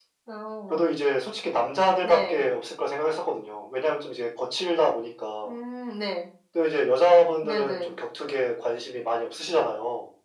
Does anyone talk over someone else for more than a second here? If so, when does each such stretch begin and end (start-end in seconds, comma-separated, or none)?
none